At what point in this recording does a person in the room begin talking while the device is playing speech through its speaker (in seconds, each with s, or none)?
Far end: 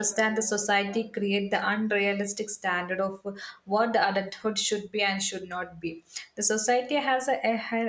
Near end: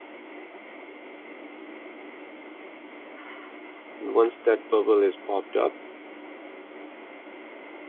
4.0 s